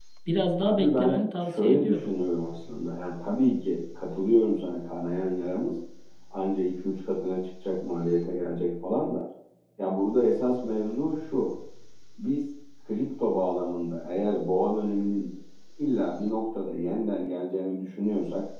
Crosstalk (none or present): present